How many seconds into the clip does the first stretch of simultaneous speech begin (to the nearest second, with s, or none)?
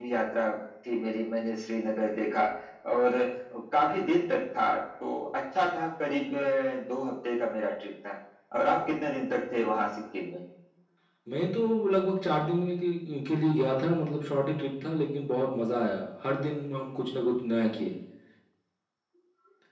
none